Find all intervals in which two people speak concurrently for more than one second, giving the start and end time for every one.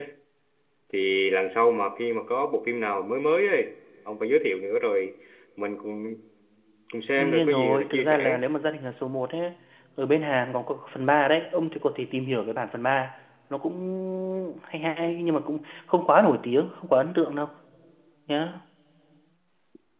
7.2-8.4

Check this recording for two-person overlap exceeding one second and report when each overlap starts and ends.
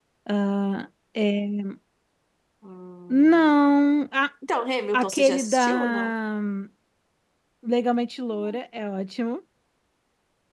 4.9-6.1

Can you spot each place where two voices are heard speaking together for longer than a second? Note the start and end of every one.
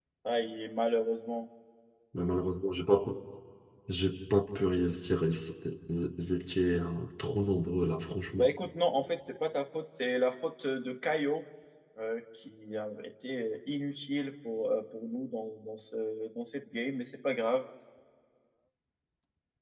none

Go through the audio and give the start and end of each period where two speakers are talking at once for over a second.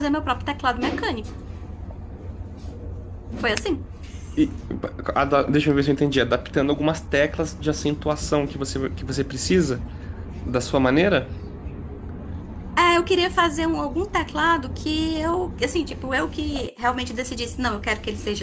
none

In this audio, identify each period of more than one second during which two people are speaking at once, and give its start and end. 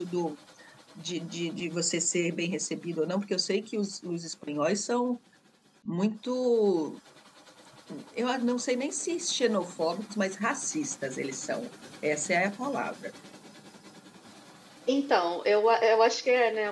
none

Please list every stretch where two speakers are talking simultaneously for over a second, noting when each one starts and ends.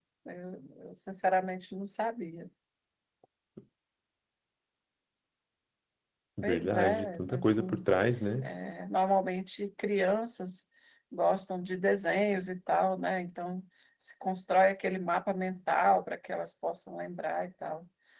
6.4-7.8

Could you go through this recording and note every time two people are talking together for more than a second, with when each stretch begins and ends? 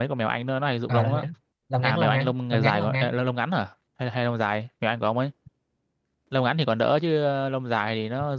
1.8-3.1

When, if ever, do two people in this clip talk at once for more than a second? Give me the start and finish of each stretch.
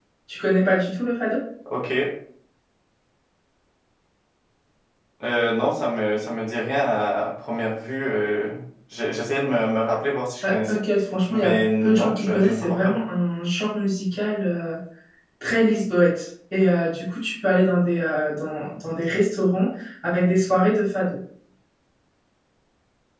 11.3-12.9

